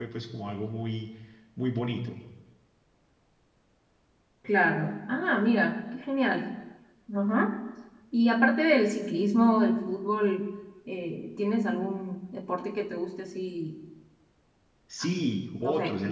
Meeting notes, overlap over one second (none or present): none